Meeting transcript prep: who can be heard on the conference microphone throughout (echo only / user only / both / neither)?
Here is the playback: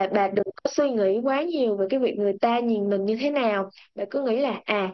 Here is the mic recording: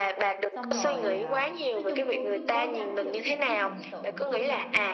both